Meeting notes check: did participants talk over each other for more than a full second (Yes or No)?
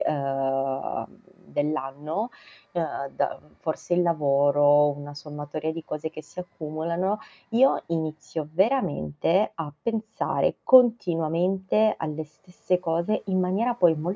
No